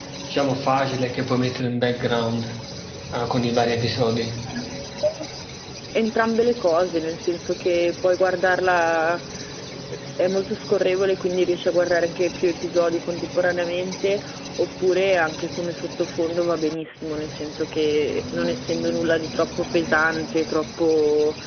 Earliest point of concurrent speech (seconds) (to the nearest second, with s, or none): none